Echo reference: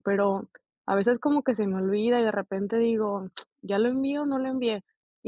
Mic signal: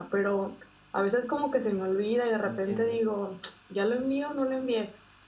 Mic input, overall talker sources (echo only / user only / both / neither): both